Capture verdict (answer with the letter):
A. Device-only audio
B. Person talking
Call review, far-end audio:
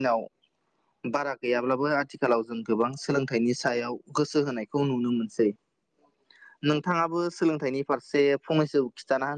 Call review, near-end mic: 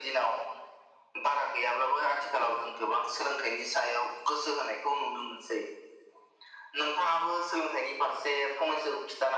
A